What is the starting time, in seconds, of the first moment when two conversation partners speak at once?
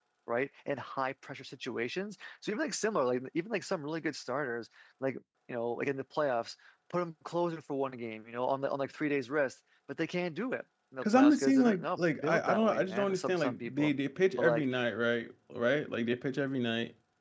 11.0 s

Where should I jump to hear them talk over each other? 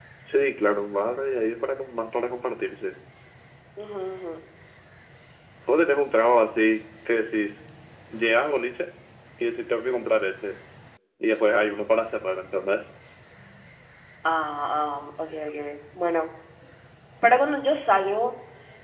none

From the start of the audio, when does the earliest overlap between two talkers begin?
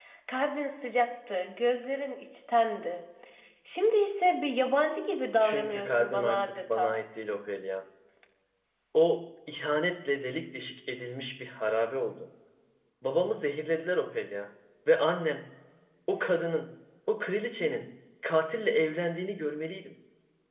5.4 s

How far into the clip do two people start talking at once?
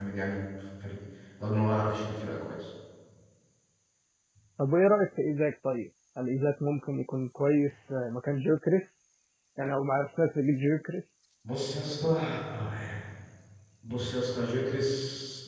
none

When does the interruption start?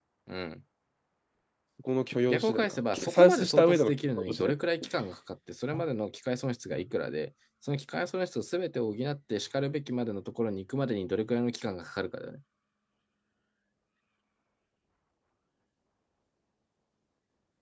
2.3 s

